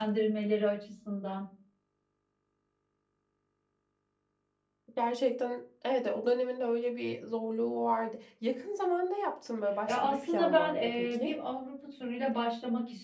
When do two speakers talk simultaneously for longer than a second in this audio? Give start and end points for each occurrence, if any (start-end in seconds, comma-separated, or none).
9.9-11.3